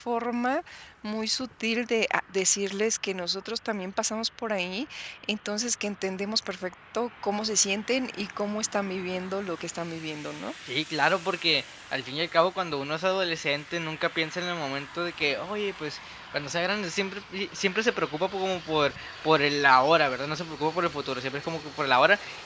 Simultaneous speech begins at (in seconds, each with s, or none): none